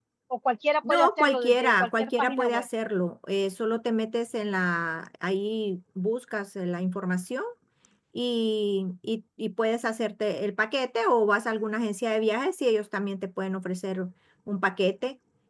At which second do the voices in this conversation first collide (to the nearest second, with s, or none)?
1 s